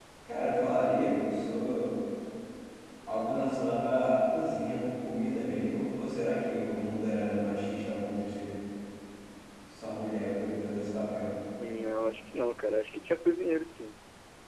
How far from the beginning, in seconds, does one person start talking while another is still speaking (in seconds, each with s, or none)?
none